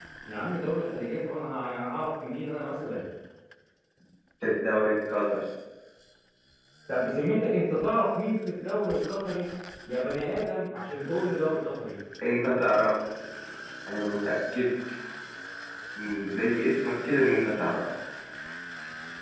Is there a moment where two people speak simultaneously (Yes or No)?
No